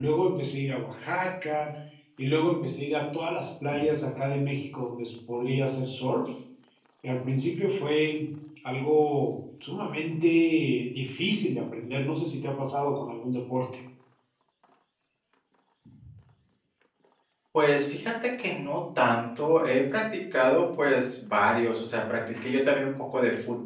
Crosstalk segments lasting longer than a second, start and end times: none

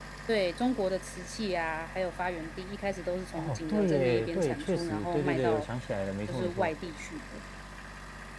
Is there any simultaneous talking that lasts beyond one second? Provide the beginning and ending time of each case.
3.3-5.7

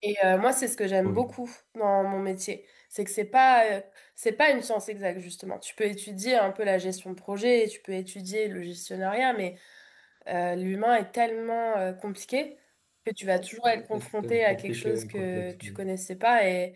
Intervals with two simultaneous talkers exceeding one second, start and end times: 13.9-15.8

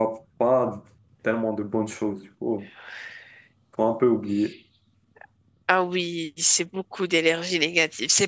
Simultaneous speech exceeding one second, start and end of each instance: none

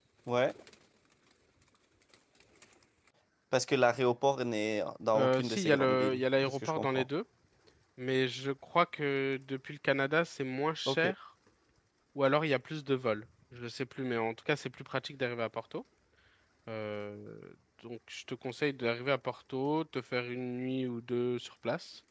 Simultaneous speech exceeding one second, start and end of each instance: 5.2-7.0

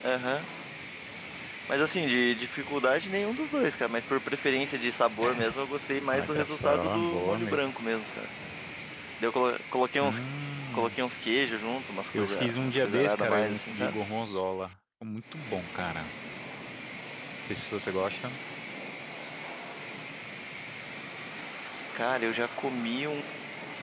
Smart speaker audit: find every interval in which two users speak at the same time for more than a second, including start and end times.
6.1-7.6, 12.2-14.0

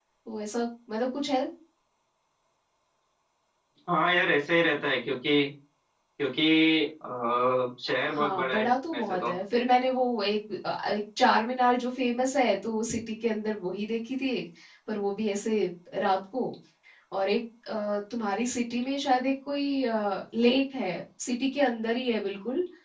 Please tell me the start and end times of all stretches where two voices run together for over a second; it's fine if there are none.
8.1-9.3

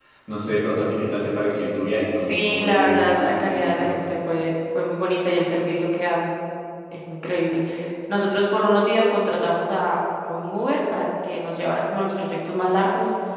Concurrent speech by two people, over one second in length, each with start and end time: 2.1-3.9

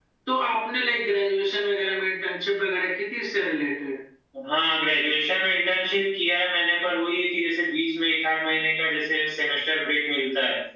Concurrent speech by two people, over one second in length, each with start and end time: none

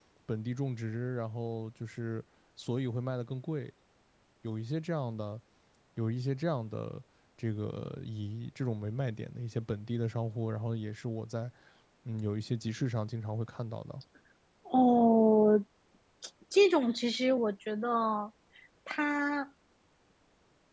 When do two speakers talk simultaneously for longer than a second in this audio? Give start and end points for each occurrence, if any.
none

